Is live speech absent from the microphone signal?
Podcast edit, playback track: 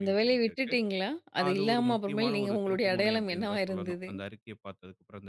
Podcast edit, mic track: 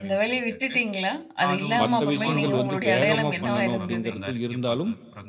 No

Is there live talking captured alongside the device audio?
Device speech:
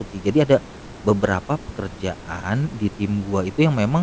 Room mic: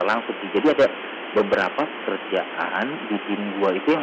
No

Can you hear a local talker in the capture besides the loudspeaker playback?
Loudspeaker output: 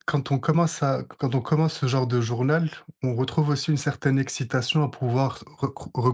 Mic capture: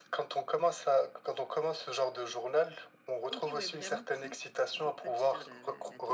Yes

